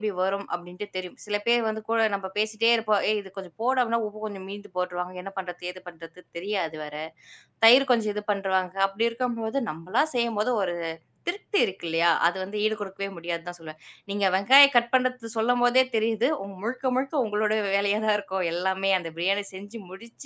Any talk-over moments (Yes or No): No